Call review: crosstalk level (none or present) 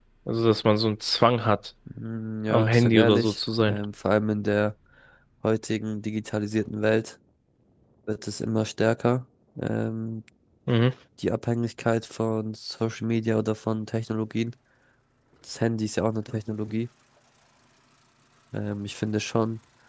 present